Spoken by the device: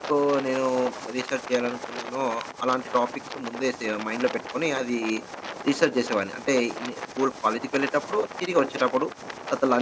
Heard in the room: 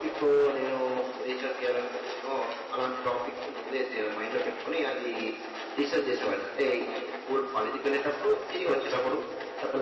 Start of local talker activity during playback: none

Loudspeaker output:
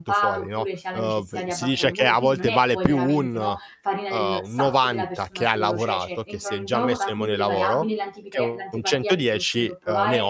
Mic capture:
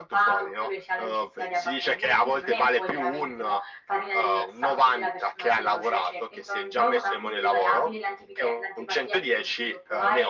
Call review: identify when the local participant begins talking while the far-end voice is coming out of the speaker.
none

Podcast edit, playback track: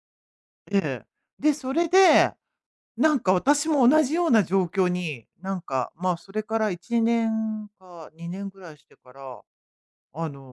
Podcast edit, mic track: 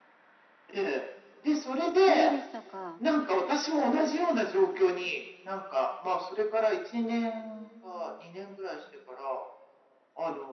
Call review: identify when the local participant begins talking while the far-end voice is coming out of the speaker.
1.9 s

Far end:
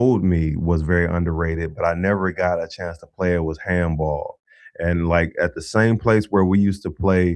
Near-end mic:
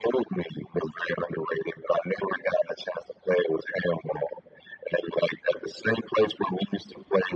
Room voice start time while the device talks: none

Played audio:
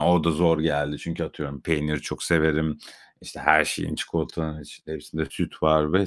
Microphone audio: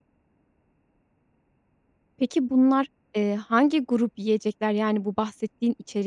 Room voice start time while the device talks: 2.2 s

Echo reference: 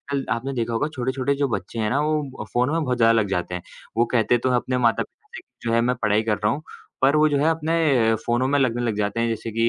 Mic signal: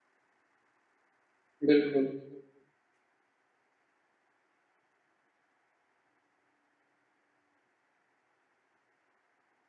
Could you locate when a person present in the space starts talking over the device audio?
1.6 s

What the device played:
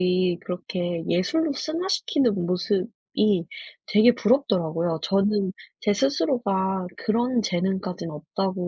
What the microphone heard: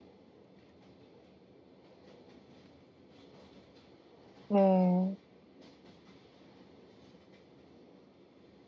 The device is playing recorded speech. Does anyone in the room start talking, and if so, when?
4.5 s

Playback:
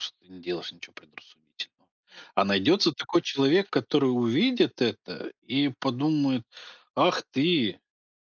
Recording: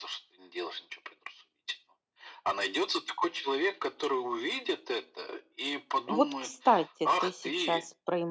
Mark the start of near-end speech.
6.1 s

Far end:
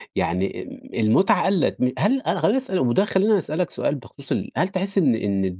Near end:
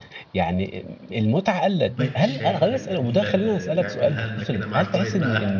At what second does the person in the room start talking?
1.8 s

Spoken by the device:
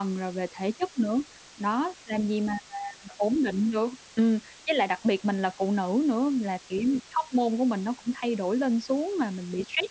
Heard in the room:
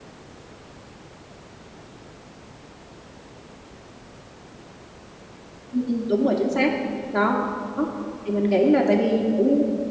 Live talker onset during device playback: 5.7 s

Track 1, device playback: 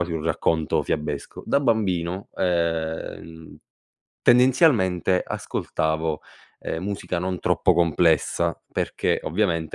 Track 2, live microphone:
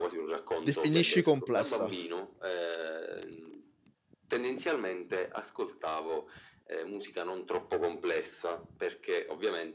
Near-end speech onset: 0.6 s

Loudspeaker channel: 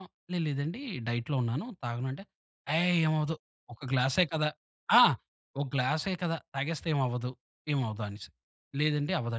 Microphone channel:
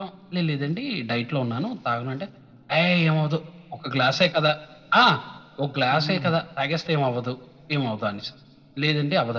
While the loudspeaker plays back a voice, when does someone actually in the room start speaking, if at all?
5.9 s

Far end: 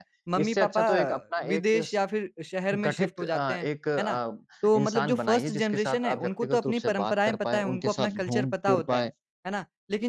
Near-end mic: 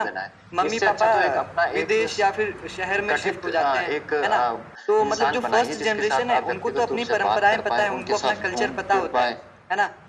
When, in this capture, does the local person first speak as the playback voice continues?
none

